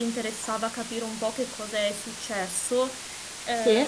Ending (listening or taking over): listening